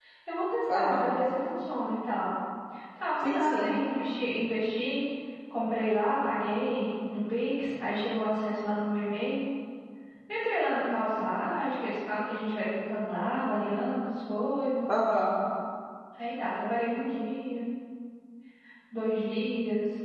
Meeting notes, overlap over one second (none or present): none